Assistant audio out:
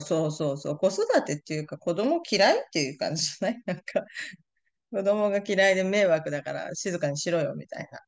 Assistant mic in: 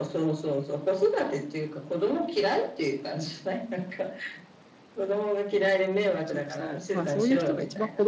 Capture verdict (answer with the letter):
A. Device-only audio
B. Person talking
B